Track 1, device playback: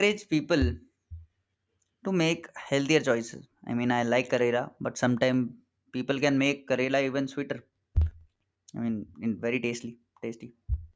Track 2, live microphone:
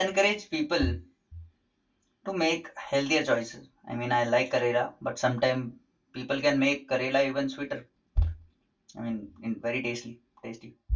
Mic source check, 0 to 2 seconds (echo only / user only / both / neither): echo only